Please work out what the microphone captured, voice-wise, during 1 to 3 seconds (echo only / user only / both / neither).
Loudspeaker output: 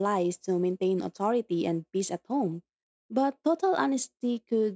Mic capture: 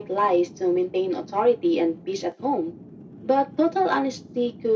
echo only